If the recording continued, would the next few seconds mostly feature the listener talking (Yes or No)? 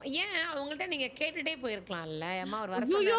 Yes